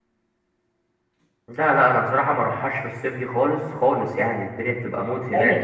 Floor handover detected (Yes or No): Yes